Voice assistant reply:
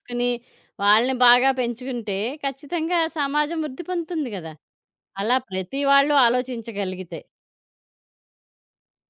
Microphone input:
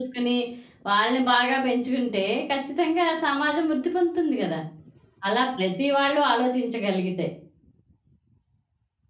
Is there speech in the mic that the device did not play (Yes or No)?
No